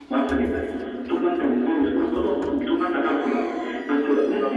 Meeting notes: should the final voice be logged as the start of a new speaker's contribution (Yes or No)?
No